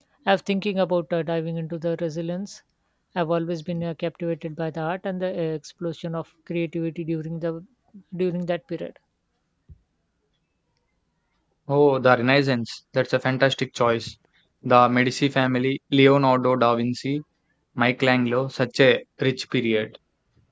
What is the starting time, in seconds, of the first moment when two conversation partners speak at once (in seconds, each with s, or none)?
none